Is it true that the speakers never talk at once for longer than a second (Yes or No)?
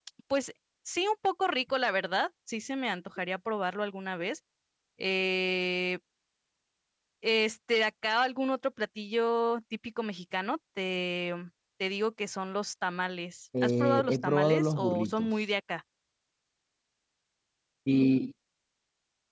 No